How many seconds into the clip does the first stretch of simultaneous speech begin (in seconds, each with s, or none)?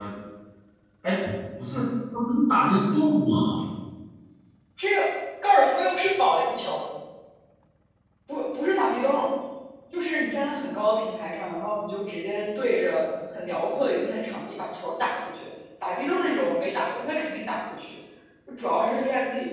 none